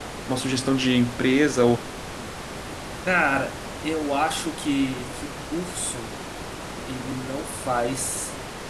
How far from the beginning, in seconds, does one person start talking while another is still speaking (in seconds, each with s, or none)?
none